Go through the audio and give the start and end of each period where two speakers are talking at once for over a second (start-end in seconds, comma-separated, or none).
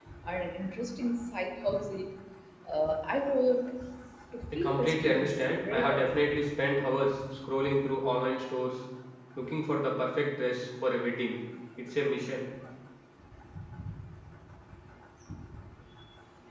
4.5-6.2